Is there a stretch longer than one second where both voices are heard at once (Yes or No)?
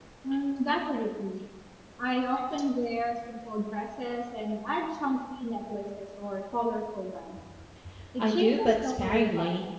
Yes